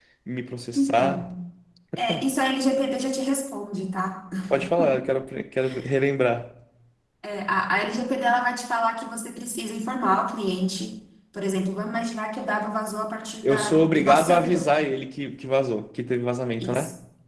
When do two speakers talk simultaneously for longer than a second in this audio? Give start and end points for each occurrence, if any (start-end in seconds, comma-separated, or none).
13.4-14.7